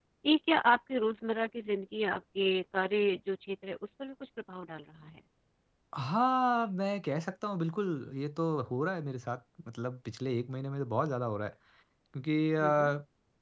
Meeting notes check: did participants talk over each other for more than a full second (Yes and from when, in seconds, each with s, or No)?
No